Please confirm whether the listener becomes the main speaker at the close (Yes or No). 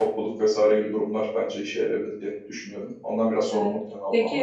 Yes